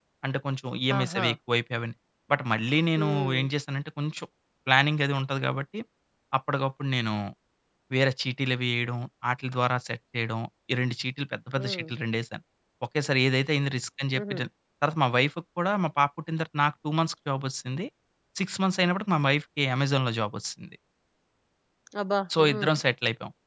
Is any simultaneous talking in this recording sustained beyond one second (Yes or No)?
No